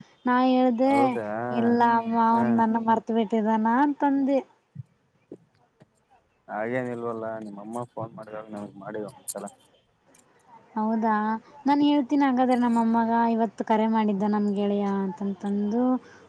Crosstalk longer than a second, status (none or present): none